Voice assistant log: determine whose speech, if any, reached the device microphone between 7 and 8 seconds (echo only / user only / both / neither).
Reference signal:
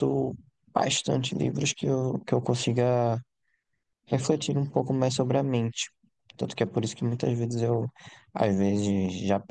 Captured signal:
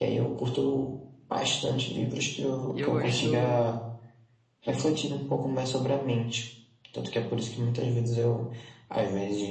echo only